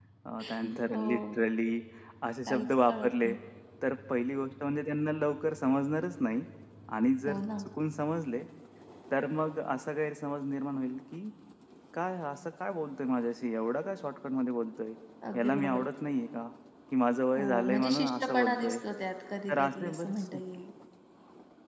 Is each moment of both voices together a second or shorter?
No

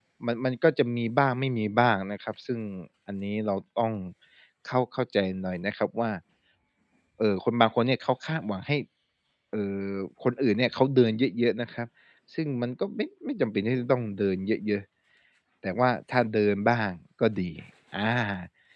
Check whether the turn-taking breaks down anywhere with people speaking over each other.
No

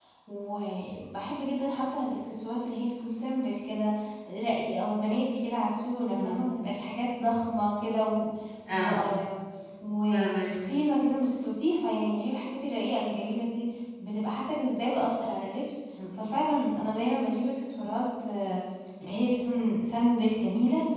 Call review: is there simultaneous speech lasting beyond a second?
No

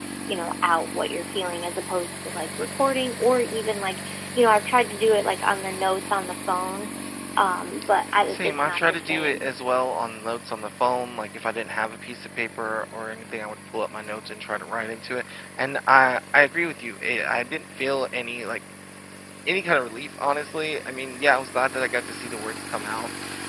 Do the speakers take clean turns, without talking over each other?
No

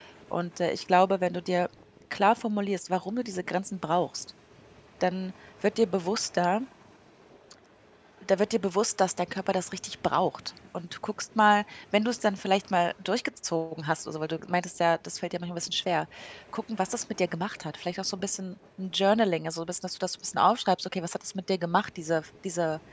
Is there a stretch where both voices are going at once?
No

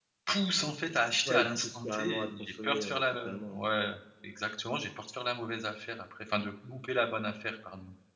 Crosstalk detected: Yes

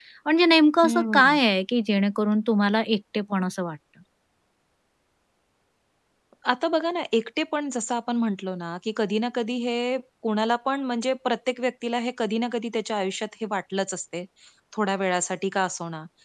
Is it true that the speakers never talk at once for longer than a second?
Yes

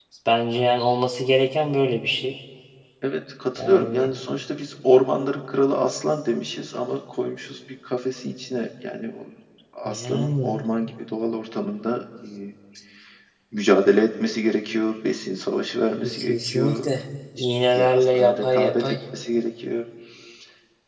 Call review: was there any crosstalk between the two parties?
Yes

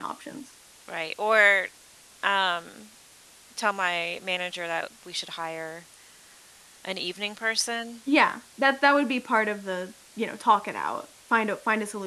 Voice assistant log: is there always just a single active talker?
Yes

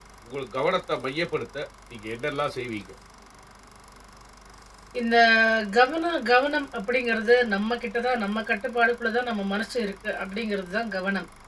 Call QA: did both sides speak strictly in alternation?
Yes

